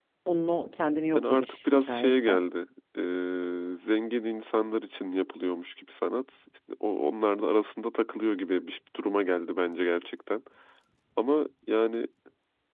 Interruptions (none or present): present